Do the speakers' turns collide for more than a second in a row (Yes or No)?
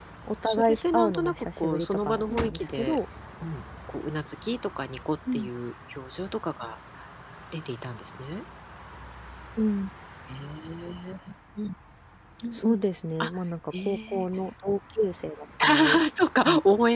Yes